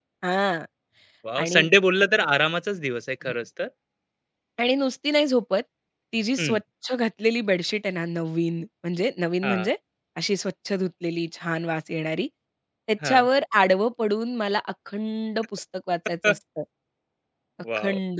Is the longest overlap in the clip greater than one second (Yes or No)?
No